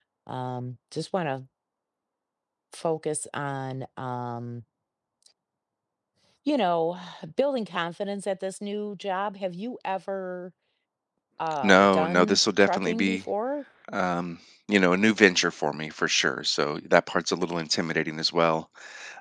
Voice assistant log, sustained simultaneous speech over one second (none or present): present